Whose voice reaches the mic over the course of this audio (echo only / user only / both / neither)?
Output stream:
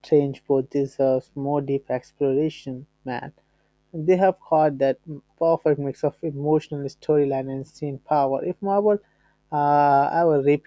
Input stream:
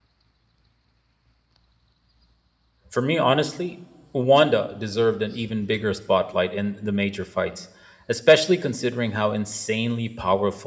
user only